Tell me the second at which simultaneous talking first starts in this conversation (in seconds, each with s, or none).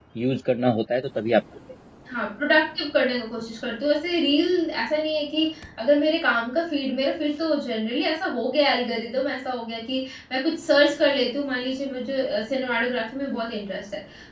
none